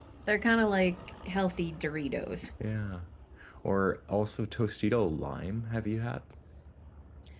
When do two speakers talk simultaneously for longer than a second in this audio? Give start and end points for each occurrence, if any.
none

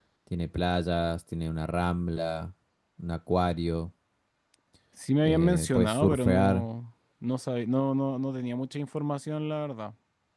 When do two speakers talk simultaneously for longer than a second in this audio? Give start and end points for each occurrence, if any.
5.2-6.7

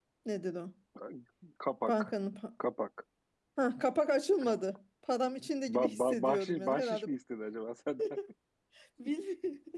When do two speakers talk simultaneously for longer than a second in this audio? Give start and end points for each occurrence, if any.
5.7-7.1

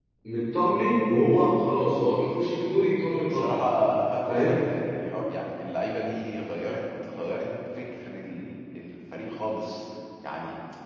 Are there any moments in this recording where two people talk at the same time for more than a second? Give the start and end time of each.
none

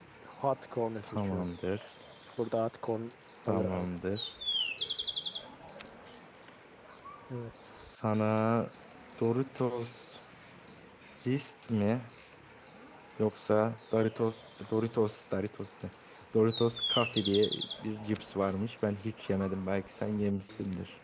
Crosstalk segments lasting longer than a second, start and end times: none

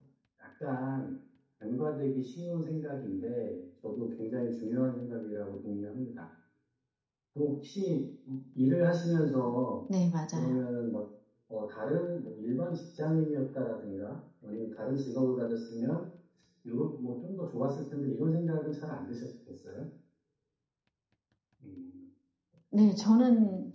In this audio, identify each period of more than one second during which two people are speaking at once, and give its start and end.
none

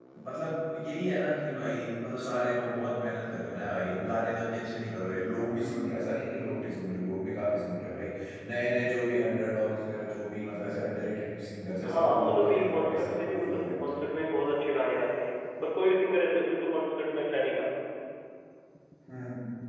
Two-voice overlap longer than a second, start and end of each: 11.8-14.1

